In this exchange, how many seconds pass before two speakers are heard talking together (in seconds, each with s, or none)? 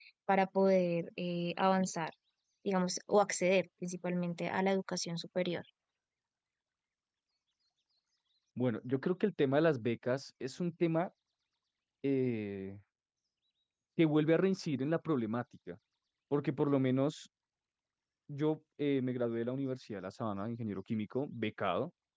none